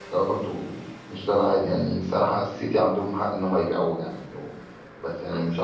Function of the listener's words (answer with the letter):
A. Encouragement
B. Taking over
A